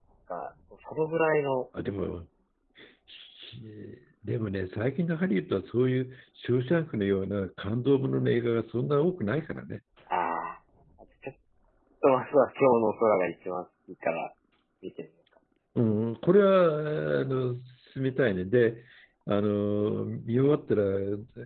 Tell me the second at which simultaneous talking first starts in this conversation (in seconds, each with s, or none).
none